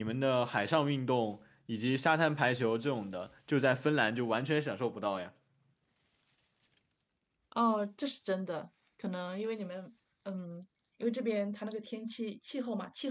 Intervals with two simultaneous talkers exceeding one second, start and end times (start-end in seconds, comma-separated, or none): none